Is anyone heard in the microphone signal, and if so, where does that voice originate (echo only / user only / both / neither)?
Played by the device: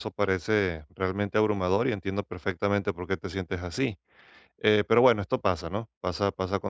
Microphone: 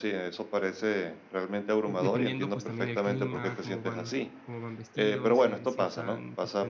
both